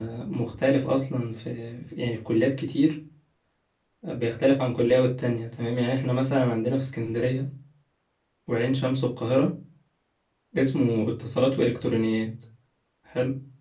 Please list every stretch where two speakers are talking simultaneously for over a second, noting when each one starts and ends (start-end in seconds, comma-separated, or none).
none